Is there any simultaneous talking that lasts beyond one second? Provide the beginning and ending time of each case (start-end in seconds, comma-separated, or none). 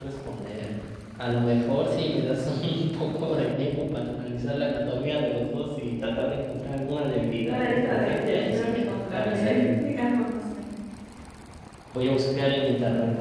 7.5-9.8